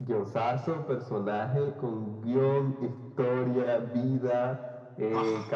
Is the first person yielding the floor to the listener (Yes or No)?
No